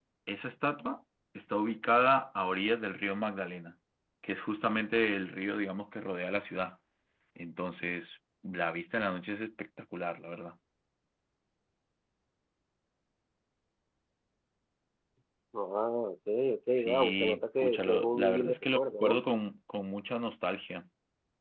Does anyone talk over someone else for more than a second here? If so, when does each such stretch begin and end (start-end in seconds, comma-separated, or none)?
16.7-19.2